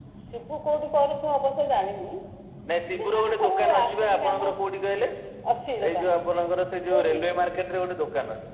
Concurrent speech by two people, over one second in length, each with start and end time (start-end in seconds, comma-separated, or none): 2.9-4.4